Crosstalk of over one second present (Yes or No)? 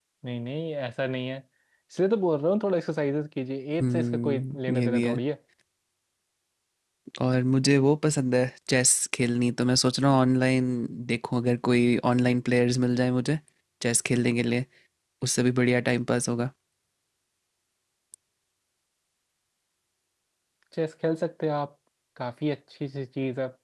Yes